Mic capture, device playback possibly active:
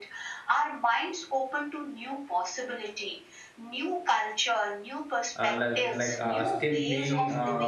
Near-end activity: present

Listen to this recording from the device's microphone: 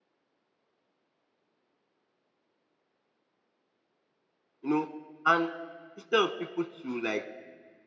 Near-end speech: present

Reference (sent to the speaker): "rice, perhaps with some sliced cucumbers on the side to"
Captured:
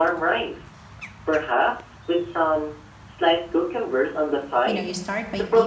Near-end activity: present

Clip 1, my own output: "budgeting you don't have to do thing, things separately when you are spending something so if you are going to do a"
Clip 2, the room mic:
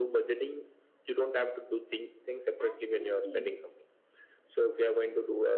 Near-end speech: present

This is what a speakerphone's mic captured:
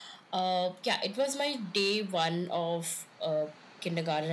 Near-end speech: none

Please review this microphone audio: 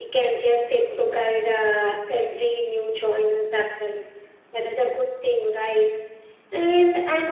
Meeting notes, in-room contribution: none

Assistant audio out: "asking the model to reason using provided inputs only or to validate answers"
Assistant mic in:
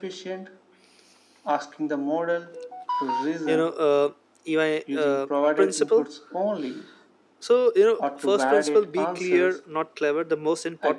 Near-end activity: present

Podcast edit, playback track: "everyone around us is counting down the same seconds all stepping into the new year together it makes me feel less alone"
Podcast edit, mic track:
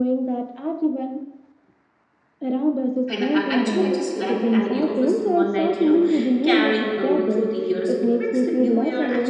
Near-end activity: present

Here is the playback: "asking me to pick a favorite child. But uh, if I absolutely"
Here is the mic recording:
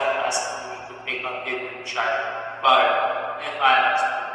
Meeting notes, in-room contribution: none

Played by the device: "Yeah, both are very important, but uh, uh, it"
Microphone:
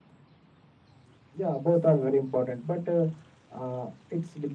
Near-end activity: none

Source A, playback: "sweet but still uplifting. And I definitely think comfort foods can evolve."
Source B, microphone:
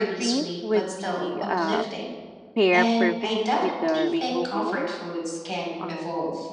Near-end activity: present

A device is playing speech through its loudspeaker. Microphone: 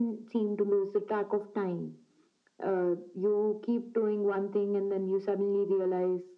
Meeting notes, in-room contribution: none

